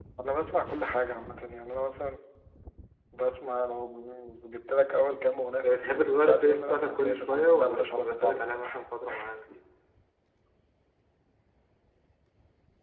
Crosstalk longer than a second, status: present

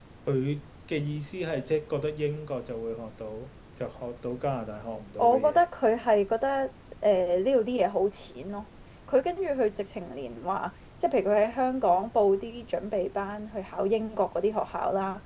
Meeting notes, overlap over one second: none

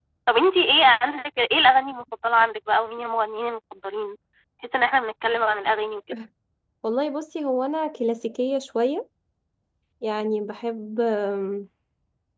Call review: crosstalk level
none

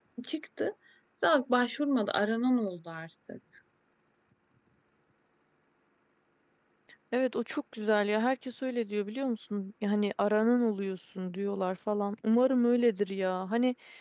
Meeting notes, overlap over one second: none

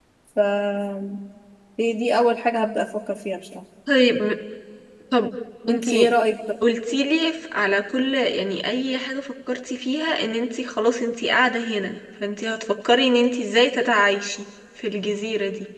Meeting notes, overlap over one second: none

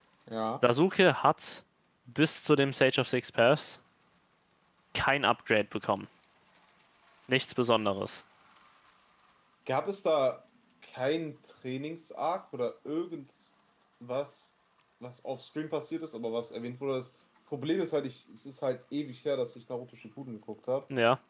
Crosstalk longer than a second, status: none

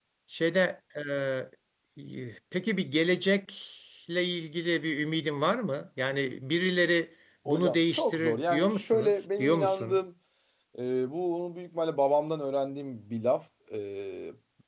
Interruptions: present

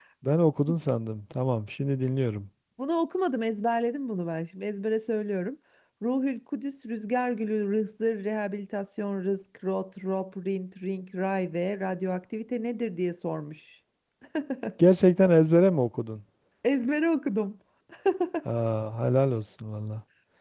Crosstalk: none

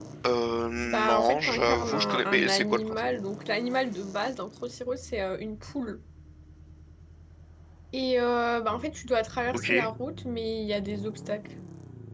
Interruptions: present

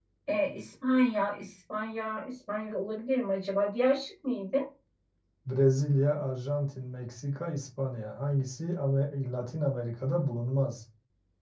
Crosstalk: none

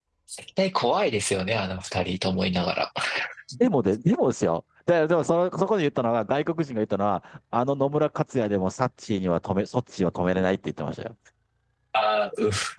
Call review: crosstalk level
none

